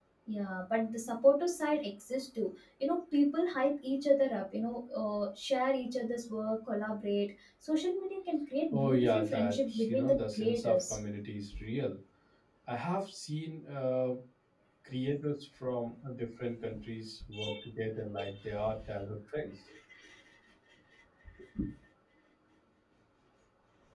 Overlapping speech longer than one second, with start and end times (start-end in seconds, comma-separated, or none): 8.7-11.0